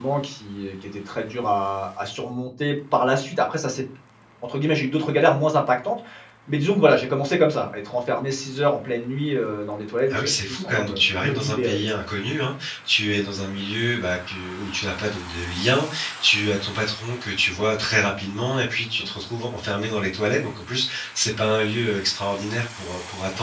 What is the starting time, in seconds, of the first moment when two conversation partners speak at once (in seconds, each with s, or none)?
10.1 s